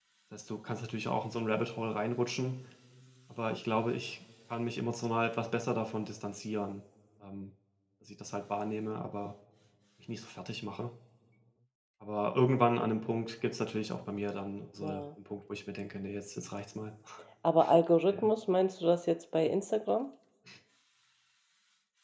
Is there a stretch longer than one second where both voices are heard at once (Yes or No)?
No